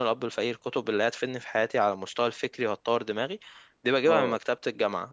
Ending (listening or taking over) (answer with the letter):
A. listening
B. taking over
A